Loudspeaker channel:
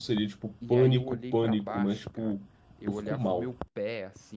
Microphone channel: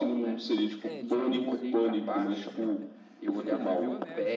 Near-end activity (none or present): present